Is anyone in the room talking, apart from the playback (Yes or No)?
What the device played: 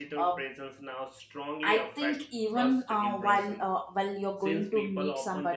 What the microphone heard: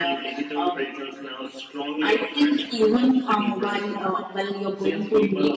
No